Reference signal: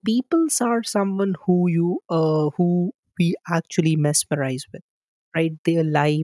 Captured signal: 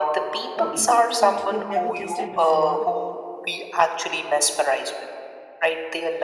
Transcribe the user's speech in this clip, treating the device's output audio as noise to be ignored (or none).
or eating food we have never tasted before